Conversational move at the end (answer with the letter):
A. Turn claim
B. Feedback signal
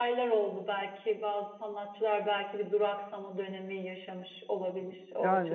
A